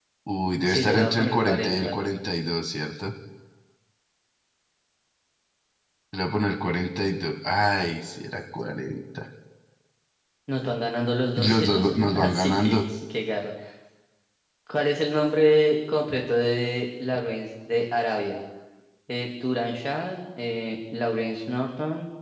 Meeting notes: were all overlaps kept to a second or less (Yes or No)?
No